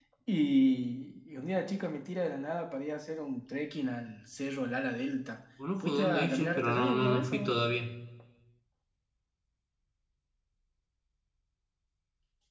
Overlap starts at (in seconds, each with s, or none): 5.6 s